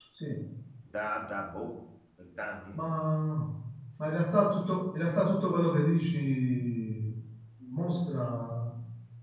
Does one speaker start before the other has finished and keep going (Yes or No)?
No